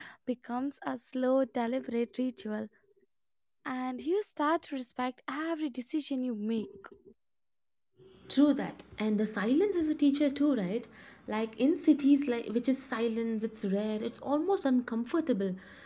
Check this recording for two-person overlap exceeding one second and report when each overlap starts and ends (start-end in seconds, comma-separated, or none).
none